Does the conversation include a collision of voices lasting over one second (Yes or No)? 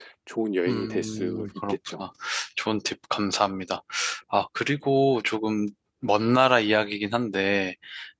Yes